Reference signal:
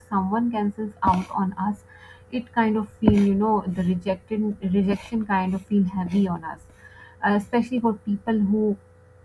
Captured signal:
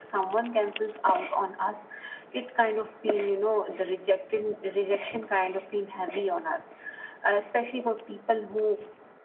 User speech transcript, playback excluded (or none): none